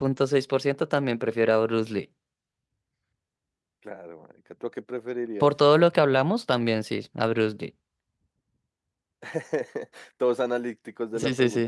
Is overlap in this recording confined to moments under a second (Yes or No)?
Yes